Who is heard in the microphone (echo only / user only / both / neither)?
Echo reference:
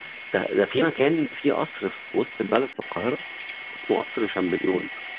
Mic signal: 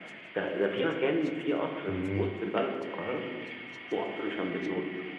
both